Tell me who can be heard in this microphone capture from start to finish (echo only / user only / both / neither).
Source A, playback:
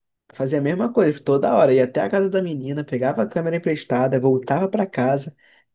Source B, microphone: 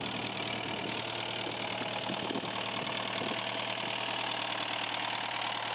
neither